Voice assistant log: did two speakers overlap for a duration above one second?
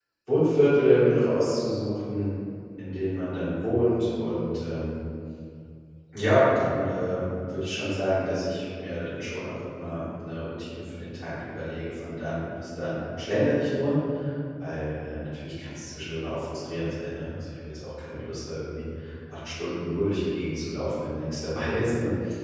No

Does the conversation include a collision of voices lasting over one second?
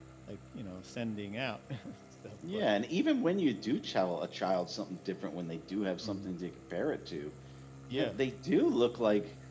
No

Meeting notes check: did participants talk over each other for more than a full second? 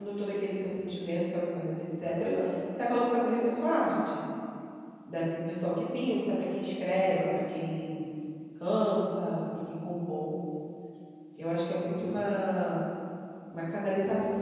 No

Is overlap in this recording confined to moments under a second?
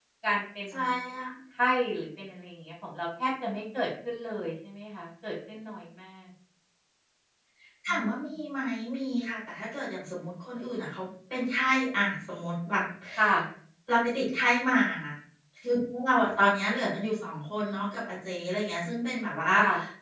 Yes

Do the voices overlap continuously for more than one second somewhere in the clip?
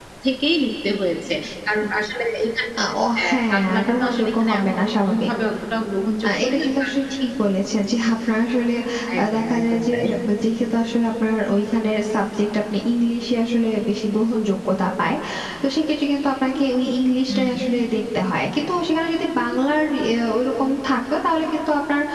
Yes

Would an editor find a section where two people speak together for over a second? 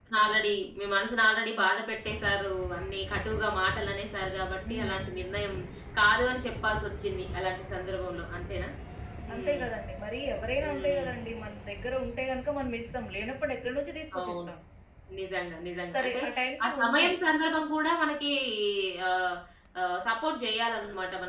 No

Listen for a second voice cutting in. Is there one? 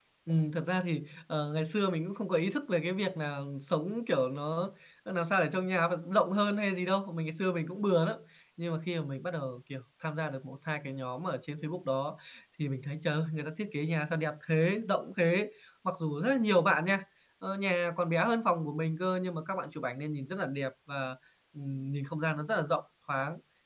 No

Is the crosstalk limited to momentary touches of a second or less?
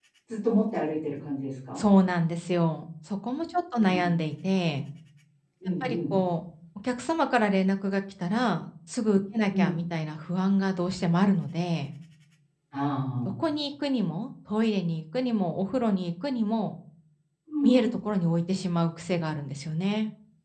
Yes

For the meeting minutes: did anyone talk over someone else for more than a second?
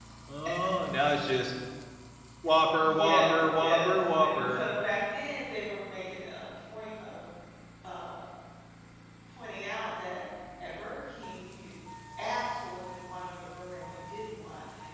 Yes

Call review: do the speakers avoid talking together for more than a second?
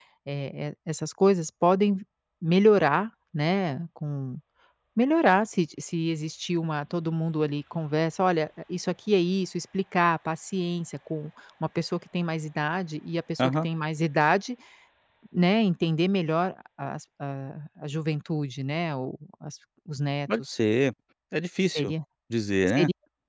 Yes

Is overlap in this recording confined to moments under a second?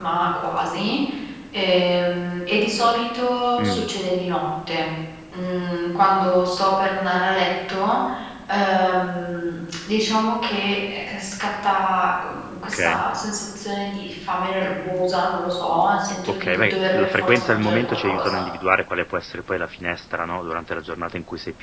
No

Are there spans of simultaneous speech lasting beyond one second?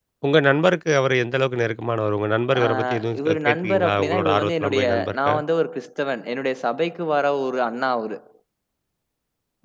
Yes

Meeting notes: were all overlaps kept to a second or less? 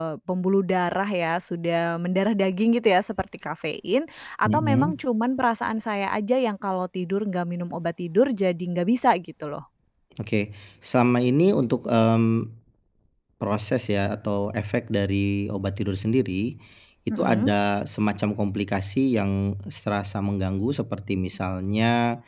Yes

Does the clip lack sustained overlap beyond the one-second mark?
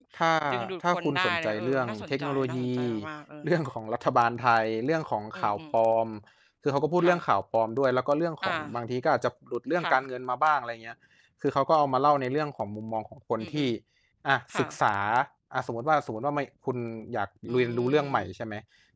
No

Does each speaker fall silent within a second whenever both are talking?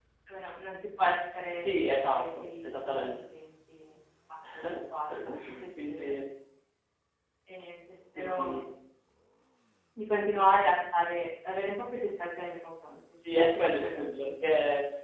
No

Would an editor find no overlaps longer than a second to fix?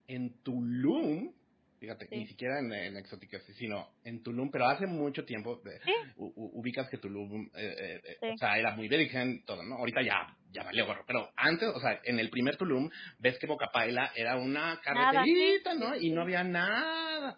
No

